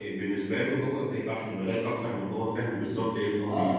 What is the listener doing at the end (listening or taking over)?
taking over